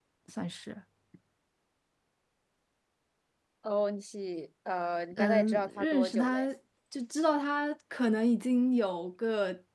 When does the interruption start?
5.1 s

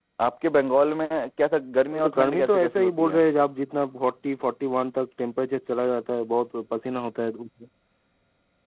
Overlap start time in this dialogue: 1.9 s

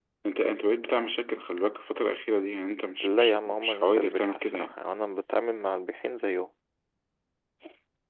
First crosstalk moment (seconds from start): 3.0 s

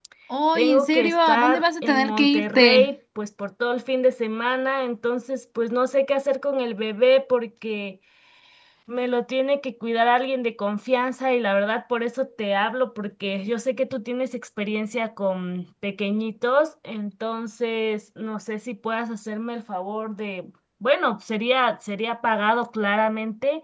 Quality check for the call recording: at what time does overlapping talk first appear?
0.6 s

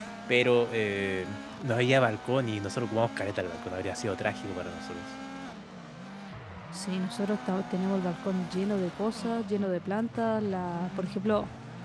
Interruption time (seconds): none

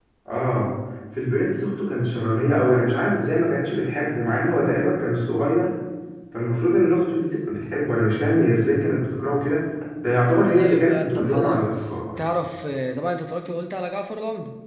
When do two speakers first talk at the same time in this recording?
10.2 s

